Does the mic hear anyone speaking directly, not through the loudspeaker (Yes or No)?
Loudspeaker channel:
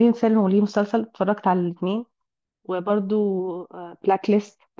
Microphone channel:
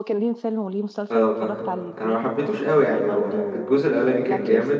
Yes